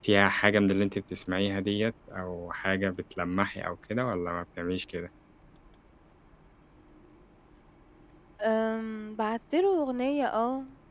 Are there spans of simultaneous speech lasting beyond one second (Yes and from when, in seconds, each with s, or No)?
No